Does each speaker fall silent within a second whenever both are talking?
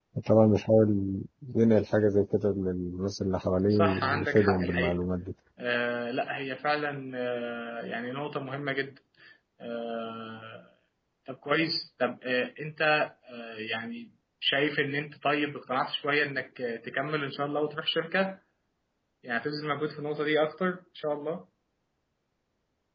No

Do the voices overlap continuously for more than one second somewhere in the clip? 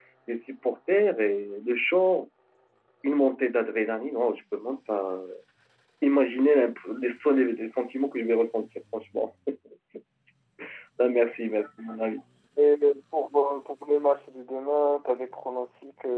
No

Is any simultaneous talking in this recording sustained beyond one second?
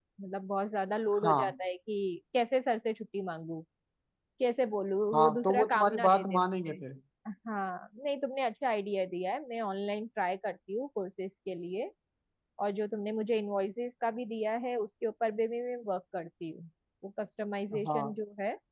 Yes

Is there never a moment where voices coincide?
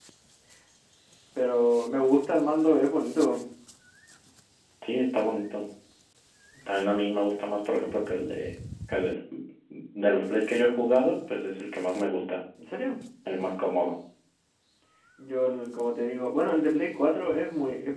Yes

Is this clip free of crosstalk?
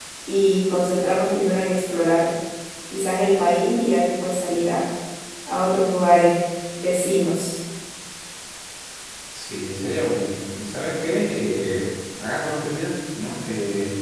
Yes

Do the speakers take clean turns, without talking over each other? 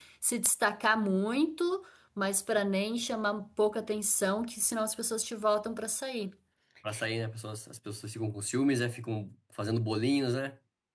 Yes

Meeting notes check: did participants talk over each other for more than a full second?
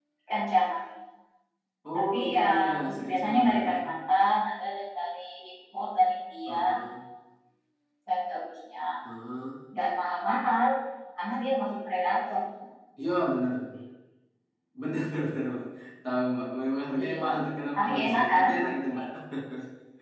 Yes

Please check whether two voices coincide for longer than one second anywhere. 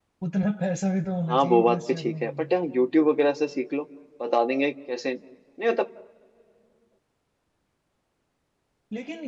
Yes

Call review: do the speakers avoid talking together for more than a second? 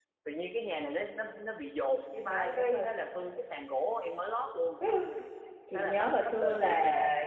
No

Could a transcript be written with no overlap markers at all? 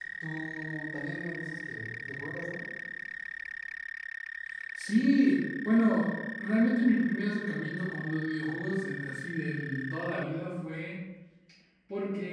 Yes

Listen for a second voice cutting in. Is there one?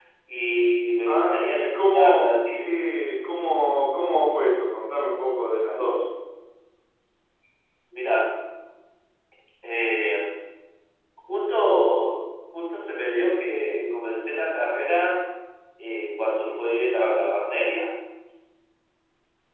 Yes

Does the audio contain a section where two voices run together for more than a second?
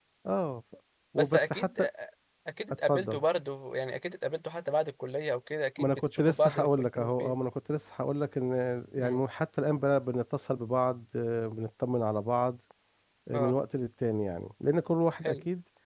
Yes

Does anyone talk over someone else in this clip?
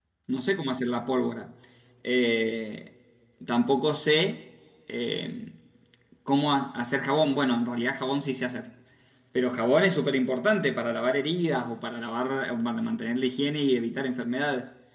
No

